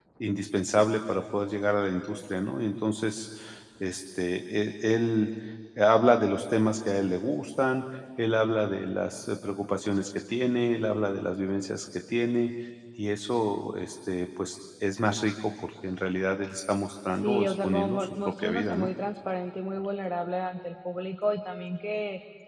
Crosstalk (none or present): present